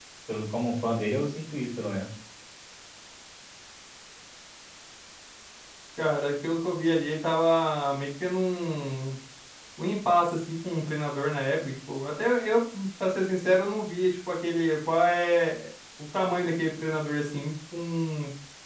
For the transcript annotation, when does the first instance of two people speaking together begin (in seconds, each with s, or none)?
none